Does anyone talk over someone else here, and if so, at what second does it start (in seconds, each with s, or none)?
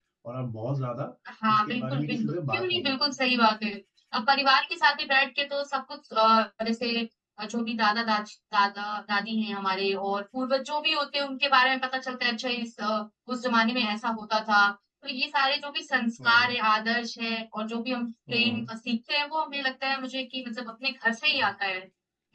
1.6 s